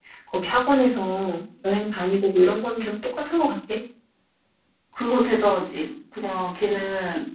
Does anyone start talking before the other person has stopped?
No

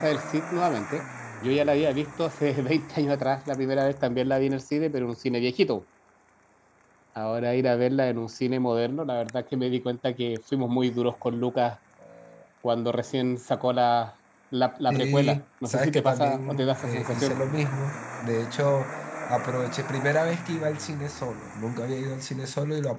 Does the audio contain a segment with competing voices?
Yes, from 14.9 s

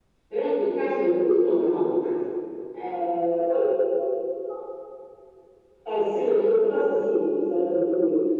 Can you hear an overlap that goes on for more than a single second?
No

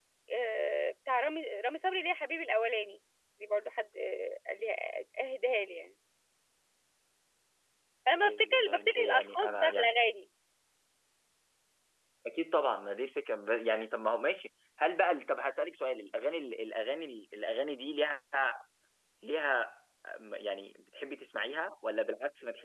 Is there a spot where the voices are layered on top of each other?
Yes, from 8.1 s

